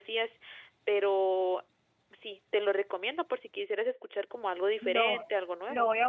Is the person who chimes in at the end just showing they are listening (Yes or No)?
No